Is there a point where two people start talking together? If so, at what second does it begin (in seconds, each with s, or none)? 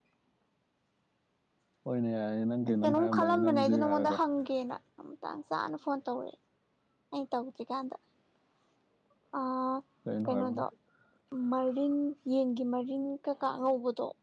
2.8 s